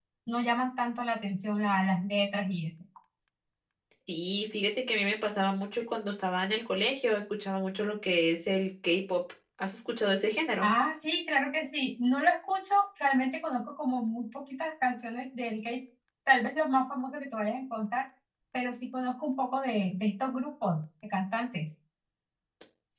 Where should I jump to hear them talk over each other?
none

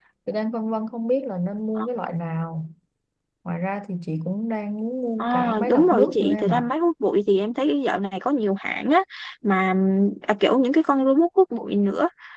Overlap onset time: 5.2 s

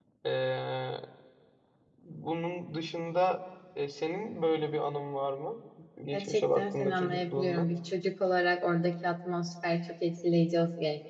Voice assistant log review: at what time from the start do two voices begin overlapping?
6.1 s

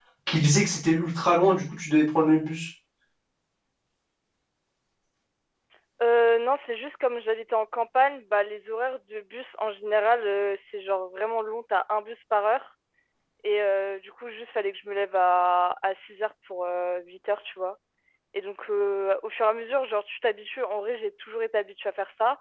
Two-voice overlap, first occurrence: none

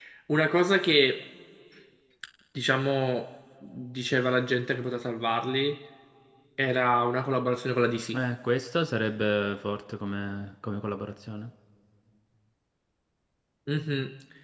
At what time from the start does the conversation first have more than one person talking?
none

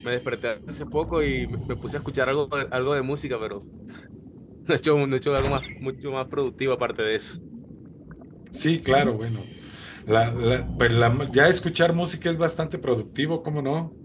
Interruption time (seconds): none

